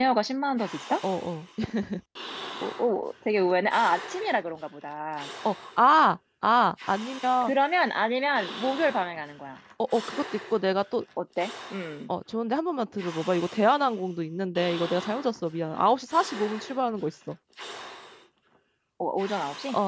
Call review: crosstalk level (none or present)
none